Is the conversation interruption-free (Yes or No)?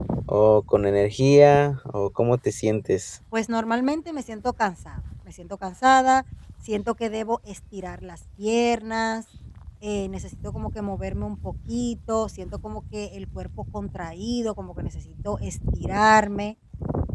Yes